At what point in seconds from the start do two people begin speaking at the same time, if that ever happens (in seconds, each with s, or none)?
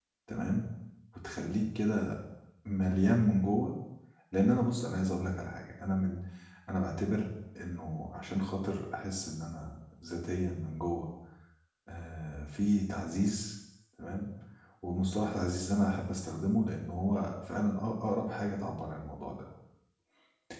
none